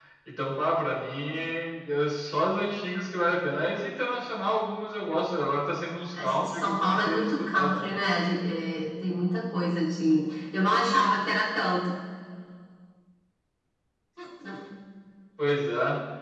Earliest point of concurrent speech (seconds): 6 s

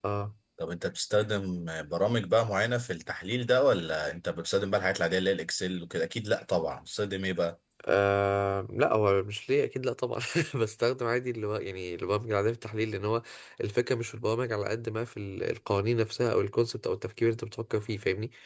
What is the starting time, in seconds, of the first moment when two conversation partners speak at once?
none

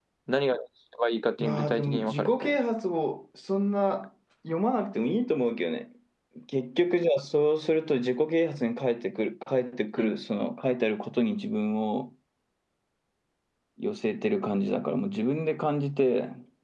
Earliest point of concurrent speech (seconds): 1 s

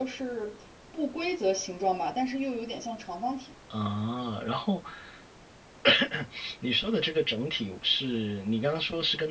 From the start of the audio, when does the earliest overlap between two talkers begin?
none

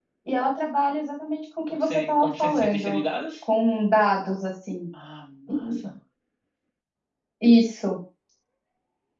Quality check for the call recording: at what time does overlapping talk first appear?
2 s

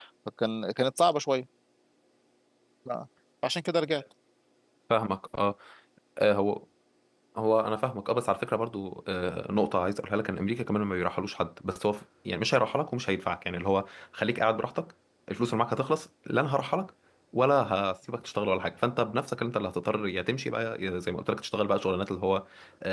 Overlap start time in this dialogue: none

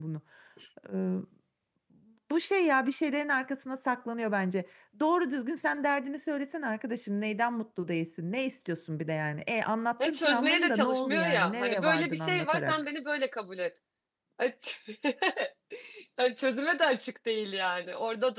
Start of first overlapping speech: 10 s

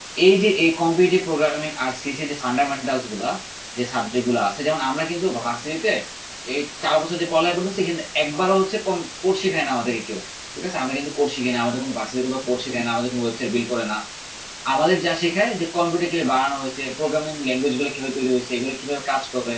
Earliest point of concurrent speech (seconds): none

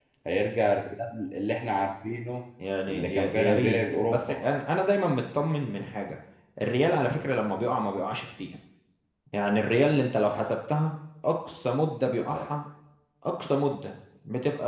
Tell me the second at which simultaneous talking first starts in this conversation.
3 s

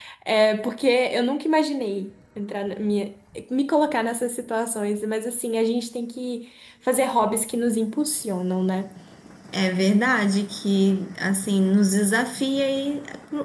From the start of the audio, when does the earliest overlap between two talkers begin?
none

